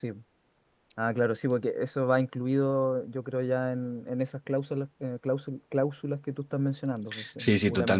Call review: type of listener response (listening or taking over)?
taking over